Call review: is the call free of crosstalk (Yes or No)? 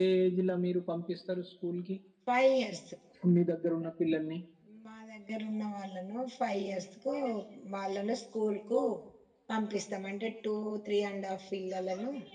Yes